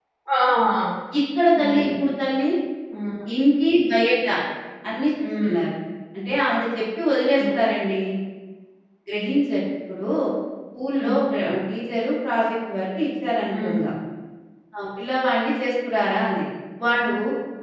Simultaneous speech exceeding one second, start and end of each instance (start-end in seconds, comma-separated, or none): none